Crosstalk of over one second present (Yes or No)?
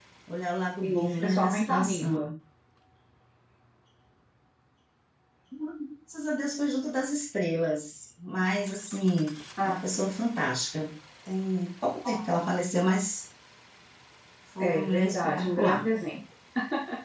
Yes